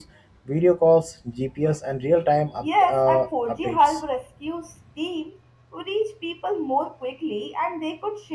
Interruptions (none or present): present